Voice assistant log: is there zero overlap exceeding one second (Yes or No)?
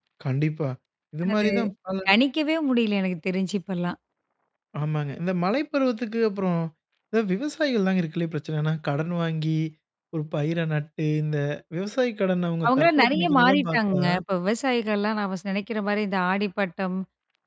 No